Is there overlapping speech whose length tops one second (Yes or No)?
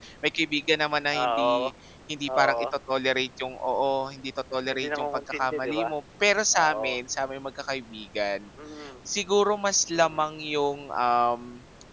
Yes